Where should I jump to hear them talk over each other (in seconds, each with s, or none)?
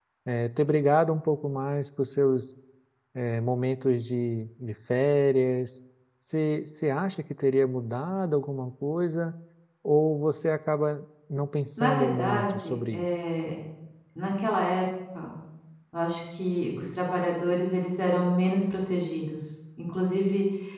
11.8 s